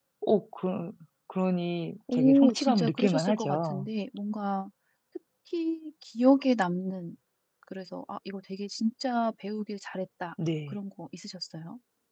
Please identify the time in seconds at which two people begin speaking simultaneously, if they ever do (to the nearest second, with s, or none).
2 s